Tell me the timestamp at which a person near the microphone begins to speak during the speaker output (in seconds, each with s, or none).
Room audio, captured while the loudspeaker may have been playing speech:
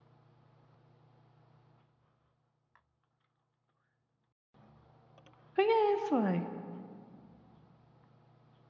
5.5 s